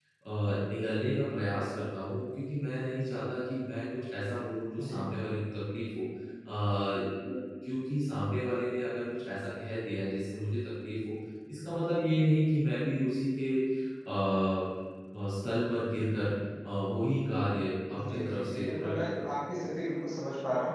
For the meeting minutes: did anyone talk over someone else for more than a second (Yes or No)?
Yes